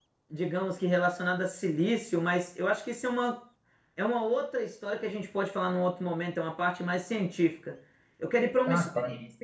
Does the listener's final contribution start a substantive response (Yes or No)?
No